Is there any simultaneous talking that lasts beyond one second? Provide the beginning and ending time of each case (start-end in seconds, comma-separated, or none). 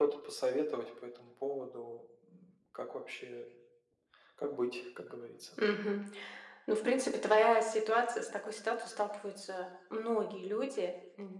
none